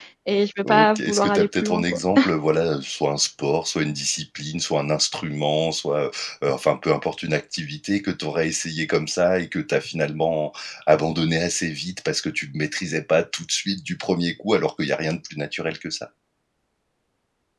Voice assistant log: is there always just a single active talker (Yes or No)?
No